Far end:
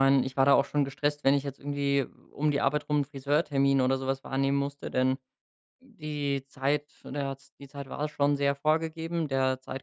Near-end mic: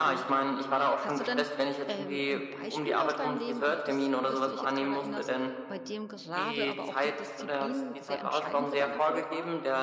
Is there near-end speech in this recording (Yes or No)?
Yes